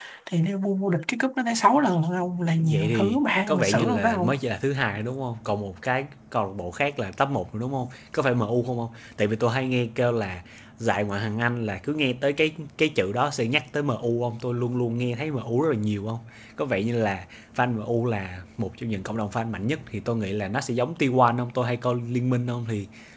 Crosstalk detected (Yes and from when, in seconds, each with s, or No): Yes, from 2.6 s